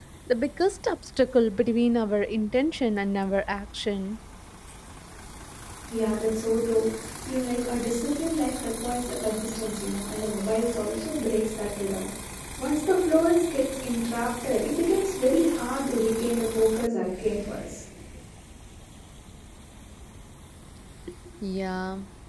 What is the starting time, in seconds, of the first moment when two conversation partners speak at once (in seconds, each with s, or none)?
none